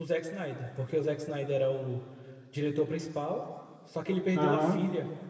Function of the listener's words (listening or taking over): listening